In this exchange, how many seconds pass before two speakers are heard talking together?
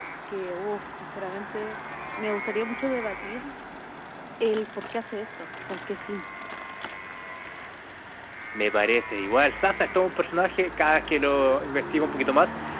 none

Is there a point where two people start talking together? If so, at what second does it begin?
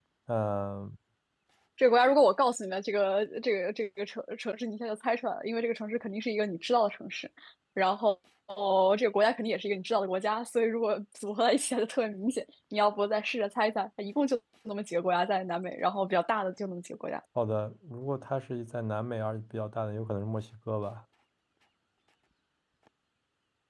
none

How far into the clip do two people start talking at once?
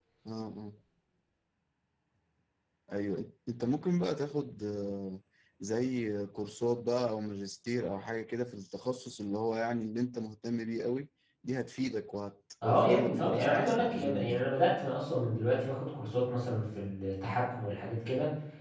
12.6 s

